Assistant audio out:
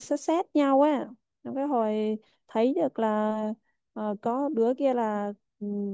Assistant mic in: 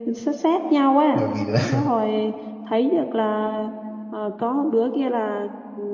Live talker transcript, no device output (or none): bởi vì là